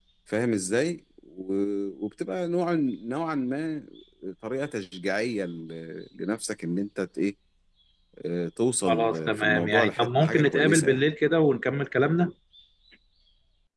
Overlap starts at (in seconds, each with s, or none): 8.9 s